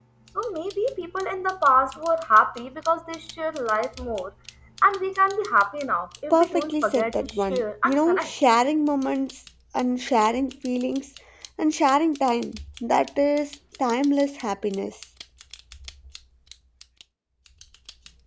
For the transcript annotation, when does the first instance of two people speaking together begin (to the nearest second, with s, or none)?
6 s